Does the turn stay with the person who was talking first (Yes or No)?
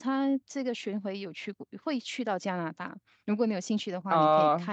No